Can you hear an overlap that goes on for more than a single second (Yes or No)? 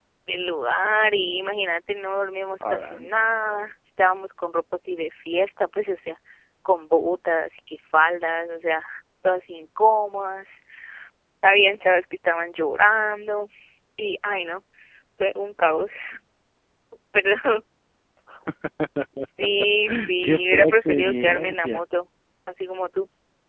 Yes